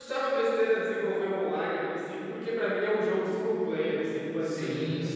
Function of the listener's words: taking over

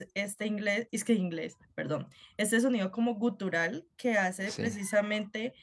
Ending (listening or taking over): listening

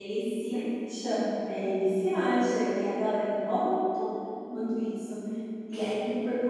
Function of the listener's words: listening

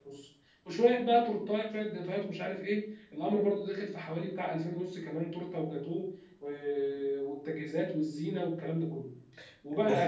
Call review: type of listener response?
listening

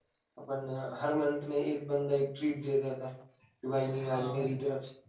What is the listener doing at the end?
listening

